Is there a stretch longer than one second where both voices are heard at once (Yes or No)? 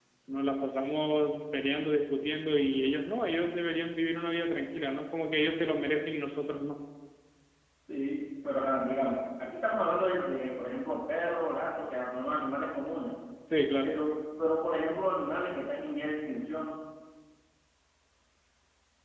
No